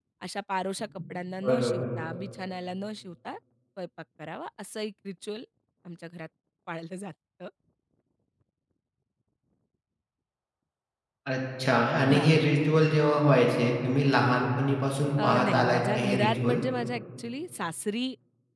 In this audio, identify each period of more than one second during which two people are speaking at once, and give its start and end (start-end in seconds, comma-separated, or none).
15.2-16.6